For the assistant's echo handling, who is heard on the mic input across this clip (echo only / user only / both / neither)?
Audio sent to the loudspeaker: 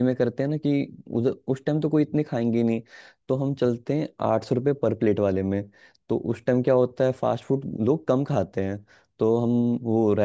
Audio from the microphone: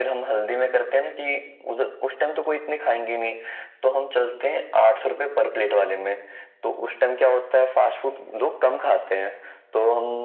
echo only